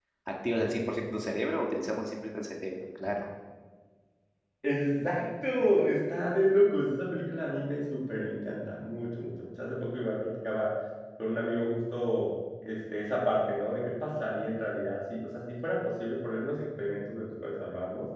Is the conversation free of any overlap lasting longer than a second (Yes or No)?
Yes